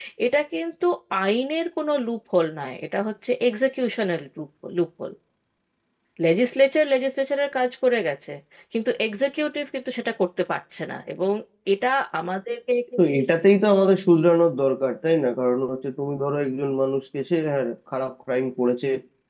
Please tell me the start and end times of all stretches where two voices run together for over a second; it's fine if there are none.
none

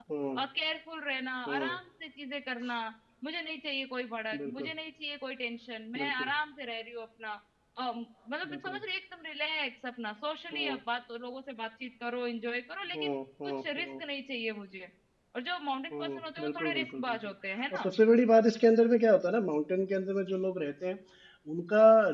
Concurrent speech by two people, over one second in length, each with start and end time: 15.9-17.2

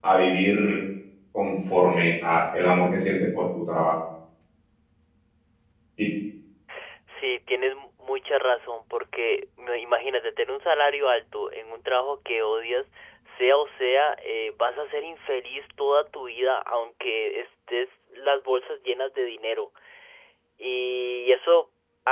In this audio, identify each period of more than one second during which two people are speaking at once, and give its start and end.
none

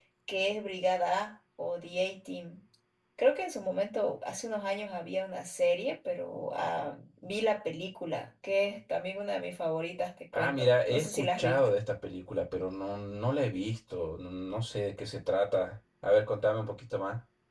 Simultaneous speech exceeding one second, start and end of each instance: 10.4-11.7

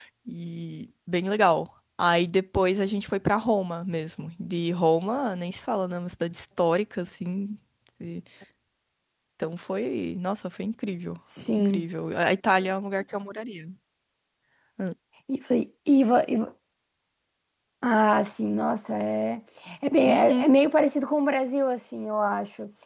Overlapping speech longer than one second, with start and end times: none

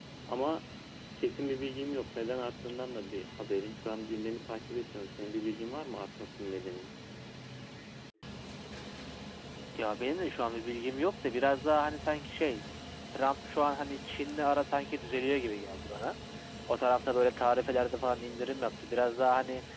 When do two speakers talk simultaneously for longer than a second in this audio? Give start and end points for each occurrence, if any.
none

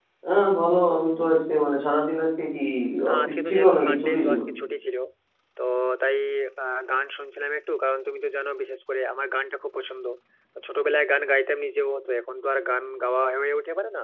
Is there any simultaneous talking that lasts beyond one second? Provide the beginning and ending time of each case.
3.1-4.4

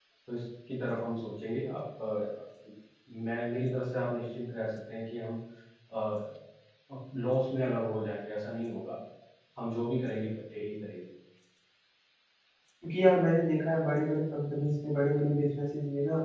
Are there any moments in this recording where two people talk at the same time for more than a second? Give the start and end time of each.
none

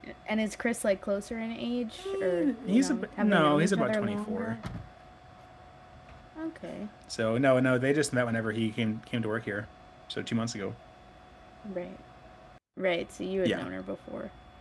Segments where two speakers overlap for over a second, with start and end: 2.0-4.6

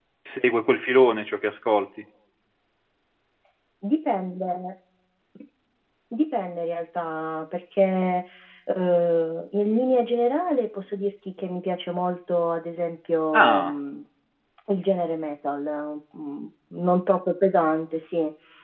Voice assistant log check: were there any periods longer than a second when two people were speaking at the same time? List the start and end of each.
none

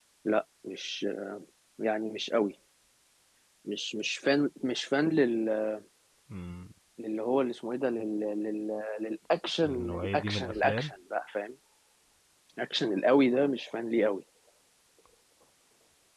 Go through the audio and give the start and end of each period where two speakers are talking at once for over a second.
9.6-10.9

